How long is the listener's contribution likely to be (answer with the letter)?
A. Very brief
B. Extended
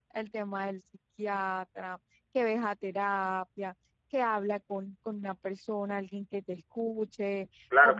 B